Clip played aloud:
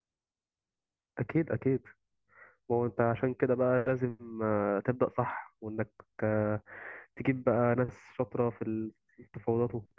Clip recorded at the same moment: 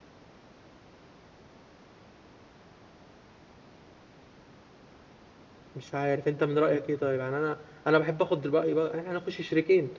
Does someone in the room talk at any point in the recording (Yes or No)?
Yes